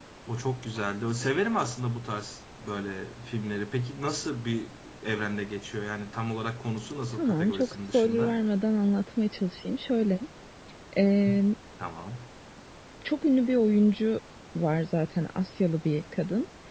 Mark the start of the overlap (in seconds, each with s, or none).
7.1 s